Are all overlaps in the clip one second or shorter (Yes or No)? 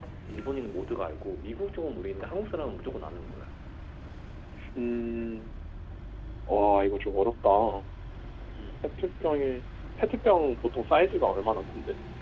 Yes